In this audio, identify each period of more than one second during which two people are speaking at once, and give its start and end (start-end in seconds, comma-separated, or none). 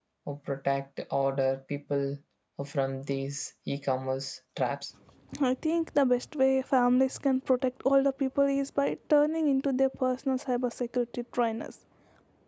none